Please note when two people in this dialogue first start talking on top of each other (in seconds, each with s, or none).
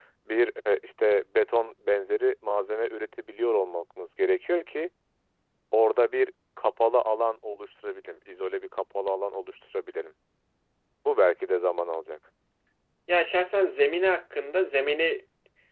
none